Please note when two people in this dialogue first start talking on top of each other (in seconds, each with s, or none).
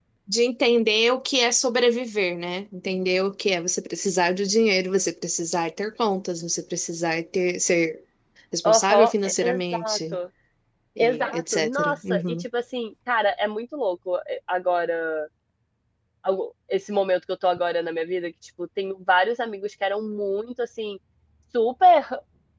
8.6 s